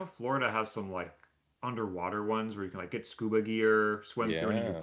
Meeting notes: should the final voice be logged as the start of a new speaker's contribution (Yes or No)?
No